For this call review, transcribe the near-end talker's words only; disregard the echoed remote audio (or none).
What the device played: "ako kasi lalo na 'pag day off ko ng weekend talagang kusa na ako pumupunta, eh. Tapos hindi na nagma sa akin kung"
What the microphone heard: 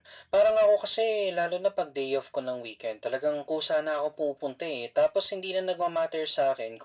none